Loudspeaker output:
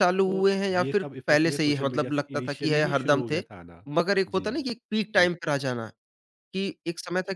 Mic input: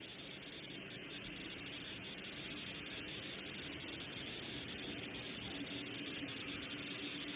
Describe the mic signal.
neither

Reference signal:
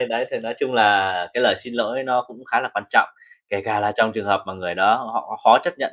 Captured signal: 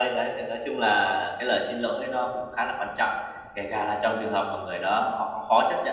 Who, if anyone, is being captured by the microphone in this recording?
echo only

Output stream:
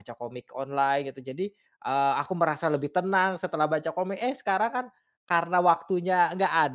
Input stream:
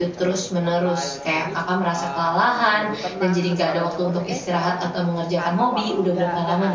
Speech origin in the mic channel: both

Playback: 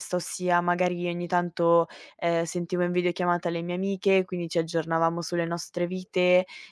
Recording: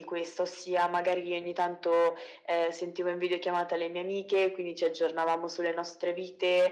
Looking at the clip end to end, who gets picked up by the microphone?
echo only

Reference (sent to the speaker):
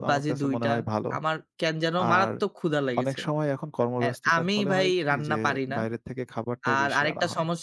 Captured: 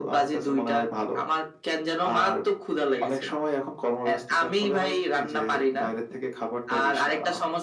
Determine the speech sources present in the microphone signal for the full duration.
echo only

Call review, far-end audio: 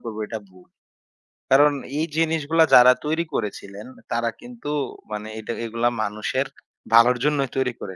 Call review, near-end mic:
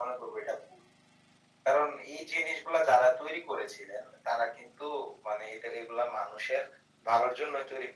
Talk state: echo only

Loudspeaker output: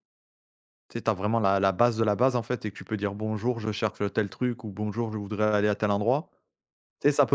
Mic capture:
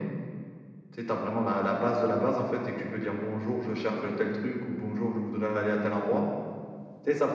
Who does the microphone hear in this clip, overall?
echo only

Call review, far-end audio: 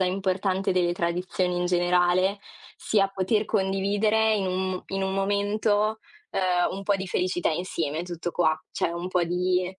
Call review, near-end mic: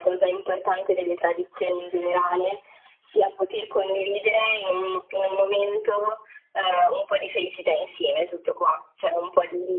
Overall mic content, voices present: echo only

